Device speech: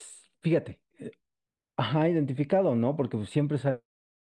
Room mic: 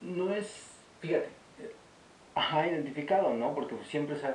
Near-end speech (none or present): none